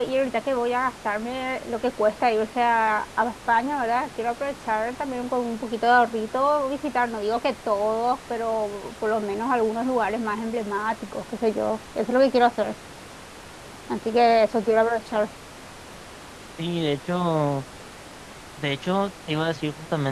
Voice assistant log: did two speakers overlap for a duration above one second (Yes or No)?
No